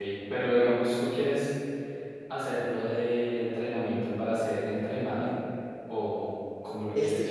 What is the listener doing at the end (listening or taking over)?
taking over